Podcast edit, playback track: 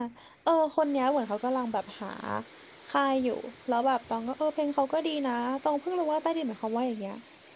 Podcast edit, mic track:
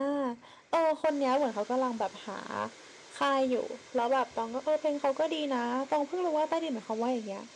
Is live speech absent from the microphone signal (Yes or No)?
Yes